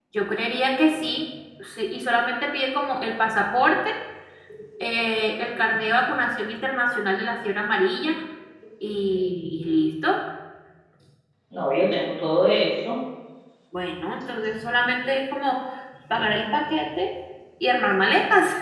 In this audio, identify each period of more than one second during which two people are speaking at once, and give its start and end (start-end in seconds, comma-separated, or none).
none